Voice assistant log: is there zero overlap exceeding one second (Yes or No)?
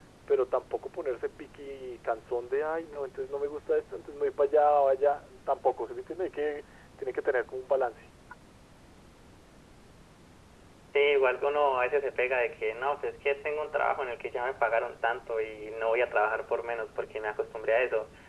Yes